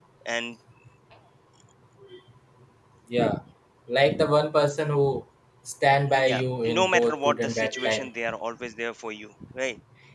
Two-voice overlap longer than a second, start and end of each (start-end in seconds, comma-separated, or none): 6.8-8.1